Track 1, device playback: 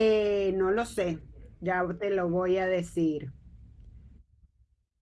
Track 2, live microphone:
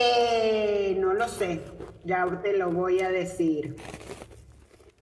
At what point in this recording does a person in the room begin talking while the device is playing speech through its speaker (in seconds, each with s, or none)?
none